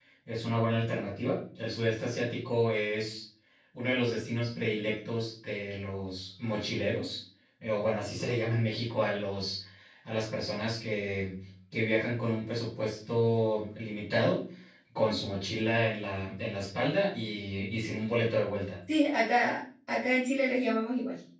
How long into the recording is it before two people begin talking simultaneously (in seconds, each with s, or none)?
none